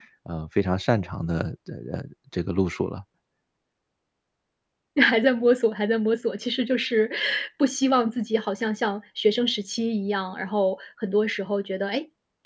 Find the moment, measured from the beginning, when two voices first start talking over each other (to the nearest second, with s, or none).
none